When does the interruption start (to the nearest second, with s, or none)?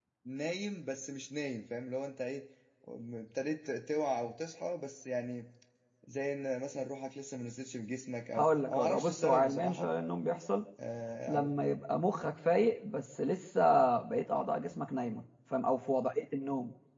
8 s